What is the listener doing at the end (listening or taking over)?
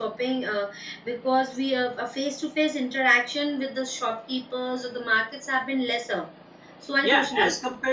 taking over